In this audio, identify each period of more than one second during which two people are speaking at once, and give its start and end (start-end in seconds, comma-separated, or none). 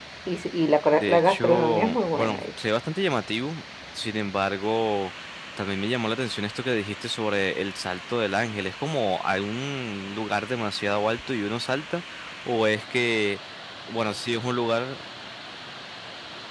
0.9-2.4